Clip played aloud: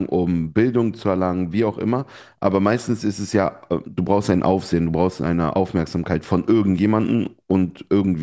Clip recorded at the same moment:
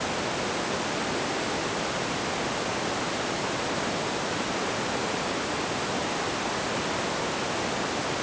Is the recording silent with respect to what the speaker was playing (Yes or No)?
Yes